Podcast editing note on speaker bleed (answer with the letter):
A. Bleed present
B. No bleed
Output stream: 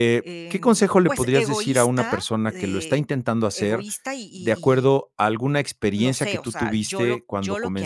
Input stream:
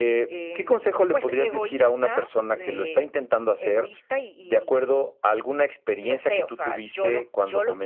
A